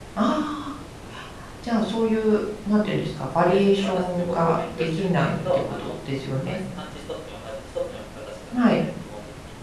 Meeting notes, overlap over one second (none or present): present